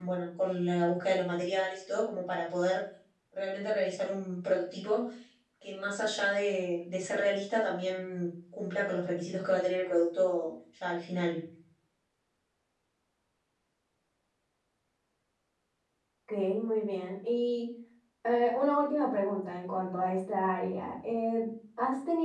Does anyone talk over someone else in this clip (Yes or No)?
No